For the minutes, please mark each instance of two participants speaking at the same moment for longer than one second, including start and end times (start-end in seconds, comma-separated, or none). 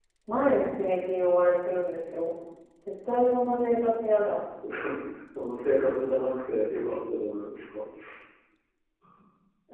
none